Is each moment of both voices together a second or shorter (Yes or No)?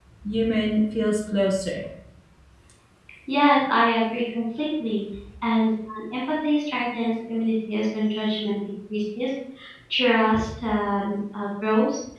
Yes